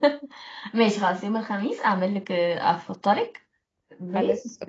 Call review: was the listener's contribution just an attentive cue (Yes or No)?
Yes